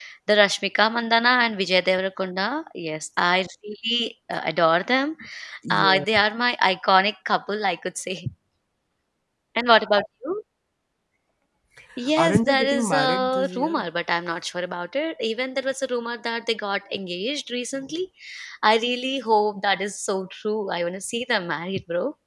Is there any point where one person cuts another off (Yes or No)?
Yes